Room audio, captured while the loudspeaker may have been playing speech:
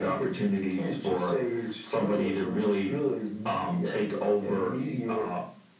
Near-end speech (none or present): none